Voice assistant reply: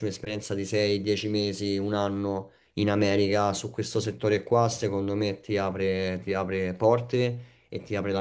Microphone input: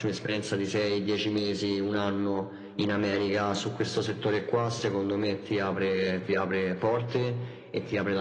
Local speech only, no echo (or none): none